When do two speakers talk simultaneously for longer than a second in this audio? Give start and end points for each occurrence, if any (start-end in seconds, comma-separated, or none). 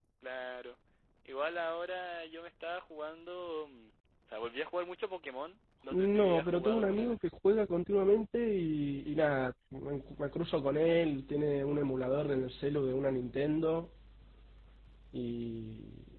5.9-7.2